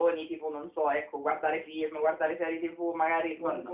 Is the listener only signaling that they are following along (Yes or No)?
Yes